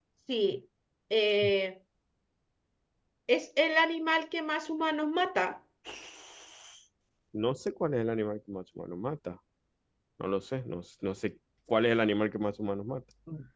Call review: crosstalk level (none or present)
none